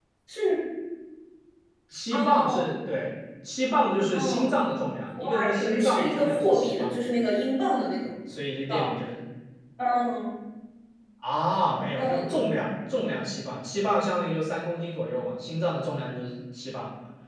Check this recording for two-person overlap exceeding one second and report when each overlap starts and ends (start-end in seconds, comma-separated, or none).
5.2-6.9